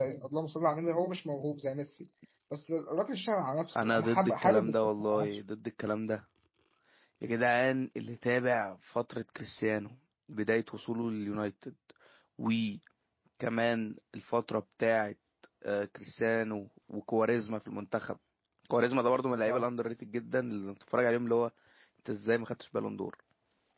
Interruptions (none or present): present